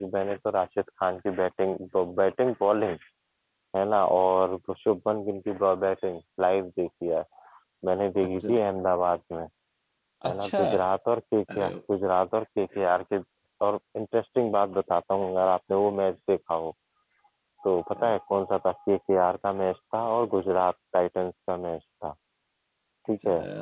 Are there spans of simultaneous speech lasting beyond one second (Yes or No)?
No